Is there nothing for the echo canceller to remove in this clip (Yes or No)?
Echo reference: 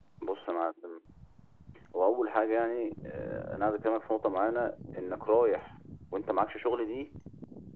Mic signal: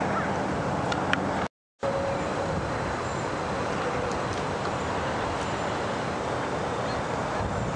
Yes